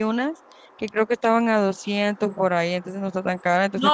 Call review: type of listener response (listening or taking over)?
taking over